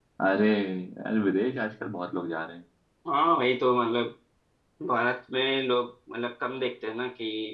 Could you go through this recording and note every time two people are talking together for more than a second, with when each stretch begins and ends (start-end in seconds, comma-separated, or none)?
none